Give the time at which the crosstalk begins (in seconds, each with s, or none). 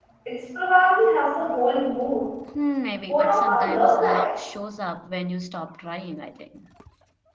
3.1 s